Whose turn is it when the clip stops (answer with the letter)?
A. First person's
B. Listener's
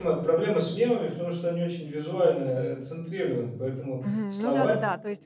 B